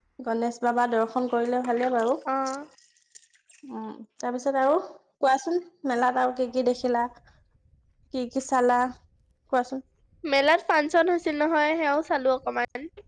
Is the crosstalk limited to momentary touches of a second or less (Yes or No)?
Yes